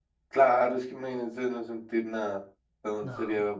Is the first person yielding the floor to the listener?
No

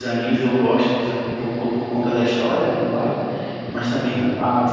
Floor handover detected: No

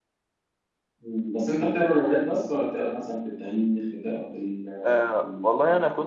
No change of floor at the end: No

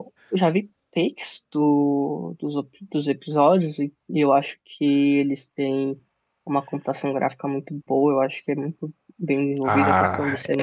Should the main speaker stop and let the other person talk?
Yes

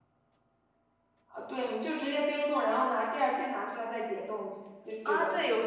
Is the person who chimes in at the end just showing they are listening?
No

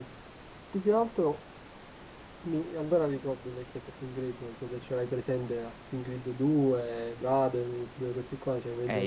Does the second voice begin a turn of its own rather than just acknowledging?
Yes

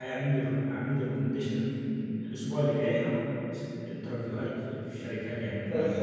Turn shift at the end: Yes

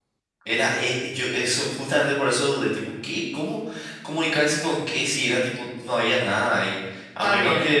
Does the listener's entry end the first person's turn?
No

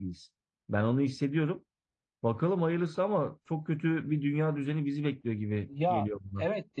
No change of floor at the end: No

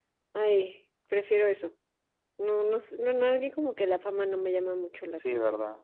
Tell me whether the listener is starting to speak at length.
Yes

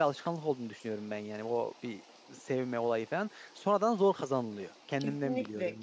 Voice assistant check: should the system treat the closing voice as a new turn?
Yes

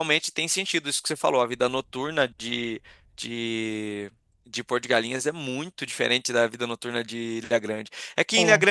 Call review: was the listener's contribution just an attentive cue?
Yes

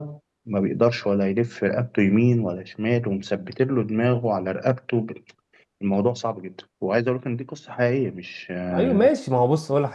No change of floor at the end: No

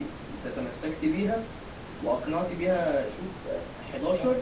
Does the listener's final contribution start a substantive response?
No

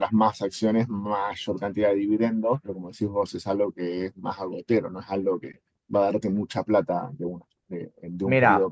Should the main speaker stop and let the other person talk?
Yes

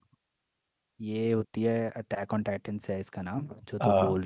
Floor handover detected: No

